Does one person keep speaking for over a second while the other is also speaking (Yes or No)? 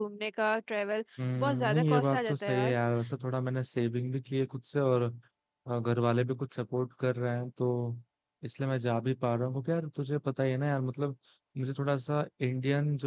Yes